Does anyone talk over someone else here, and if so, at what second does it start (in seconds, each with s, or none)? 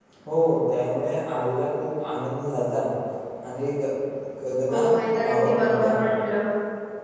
4.7 s